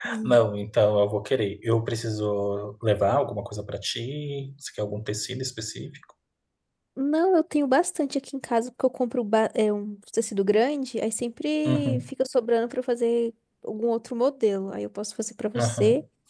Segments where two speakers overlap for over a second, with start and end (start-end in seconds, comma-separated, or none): none